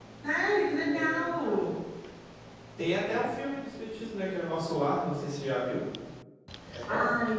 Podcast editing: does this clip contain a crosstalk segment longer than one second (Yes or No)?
No